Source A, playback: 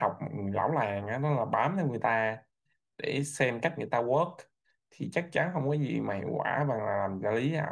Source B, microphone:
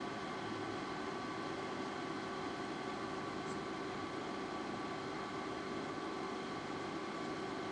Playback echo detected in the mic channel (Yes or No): No